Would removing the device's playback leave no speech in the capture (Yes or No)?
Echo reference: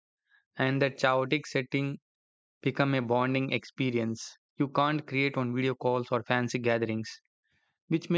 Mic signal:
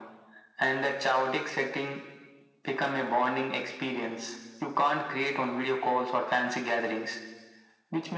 Yes